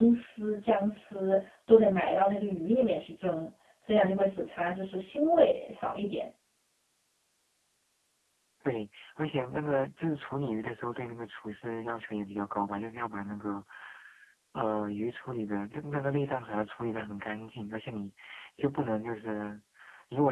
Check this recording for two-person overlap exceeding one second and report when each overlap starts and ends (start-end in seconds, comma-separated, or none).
none